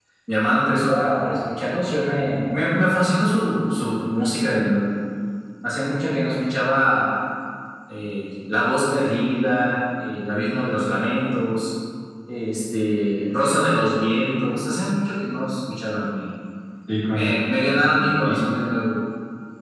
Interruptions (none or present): present